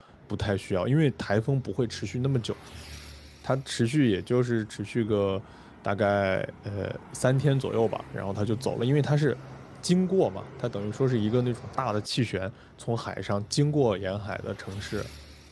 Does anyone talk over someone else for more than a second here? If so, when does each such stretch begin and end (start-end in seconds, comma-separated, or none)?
none